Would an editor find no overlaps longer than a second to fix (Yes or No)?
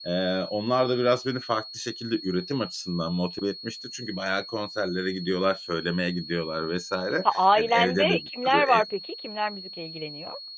No